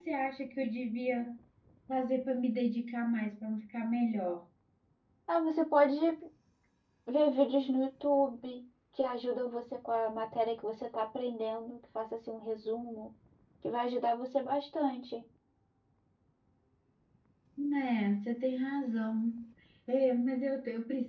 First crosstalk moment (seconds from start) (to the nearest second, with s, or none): none